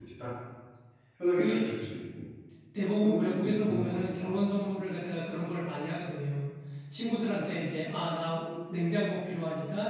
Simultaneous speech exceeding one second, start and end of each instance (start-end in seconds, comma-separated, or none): 3.0-4.3